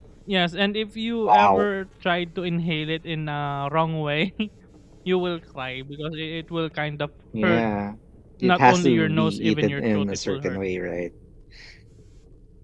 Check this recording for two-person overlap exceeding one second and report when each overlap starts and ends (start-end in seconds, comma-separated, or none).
8.4-10.6